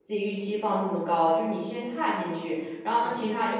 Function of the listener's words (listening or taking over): listening